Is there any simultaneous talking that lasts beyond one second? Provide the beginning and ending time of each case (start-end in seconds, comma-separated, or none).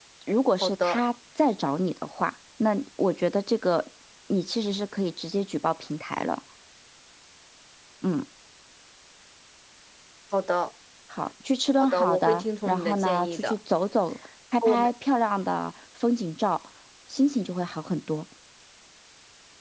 11.8-13.5